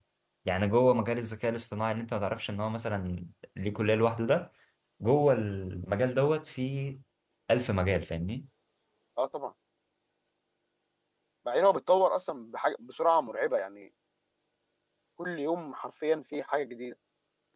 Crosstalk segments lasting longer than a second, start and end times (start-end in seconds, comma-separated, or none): none